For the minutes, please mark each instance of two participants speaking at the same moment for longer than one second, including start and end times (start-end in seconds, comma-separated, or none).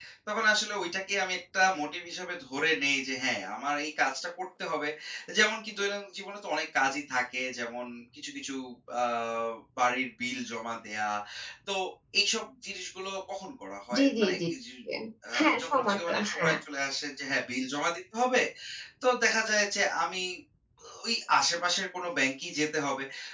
15.4-16.6